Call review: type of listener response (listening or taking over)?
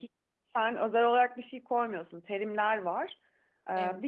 listening